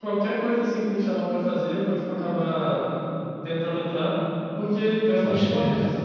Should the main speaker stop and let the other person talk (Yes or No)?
No